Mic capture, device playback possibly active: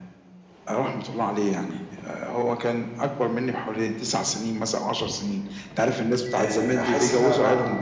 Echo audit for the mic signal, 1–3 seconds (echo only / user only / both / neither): echo only